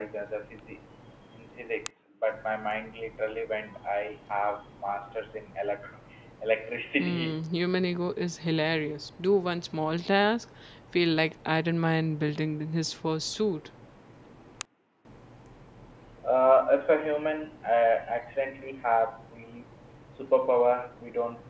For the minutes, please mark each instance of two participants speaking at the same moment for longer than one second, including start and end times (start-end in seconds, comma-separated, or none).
none